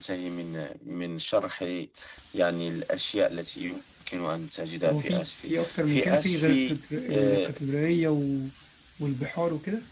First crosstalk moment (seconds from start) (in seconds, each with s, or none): 4.8 s